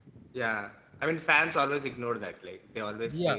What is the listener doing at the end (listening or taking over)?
taking over